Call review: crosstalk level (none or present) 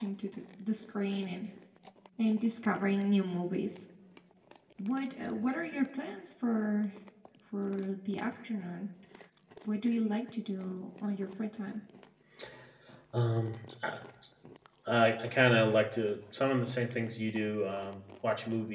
none